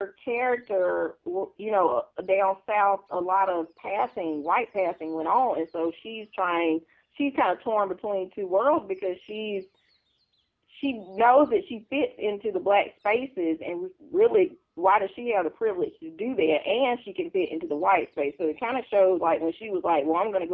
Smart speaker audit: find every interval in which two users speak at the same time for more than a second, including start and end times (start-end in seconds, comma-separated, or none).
none